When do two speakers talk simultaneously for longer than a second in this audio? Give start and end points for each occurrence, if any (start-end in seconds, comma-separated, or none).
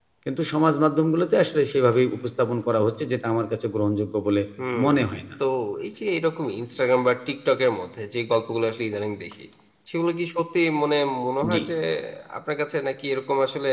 none